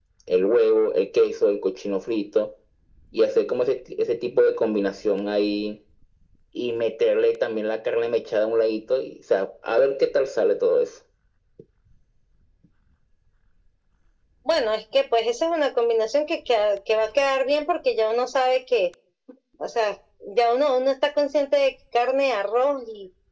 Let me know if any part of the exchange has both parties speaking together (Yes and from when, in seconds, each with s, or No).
No